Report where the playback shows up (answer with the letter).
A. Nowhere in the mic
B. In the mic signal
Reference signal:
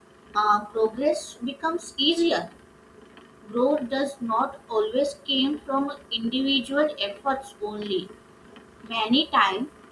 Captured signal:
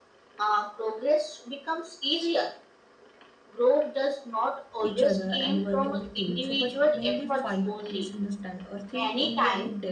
B